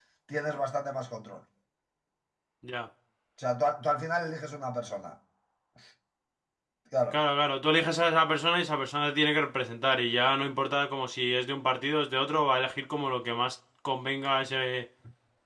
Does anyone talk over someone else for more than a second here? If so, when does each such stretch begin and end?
none

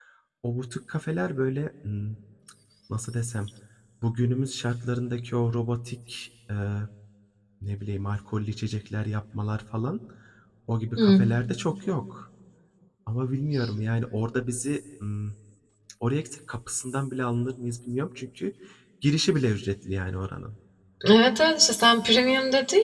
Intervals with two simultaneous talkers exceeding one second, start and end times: none

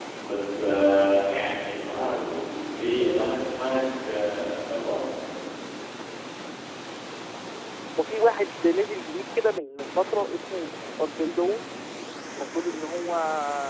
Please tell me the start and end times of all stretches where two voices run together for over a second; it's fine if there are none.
none

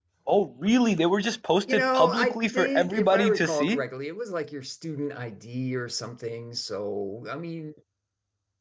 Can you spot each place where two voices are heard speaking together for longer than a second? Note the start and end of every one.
1.7-3.8

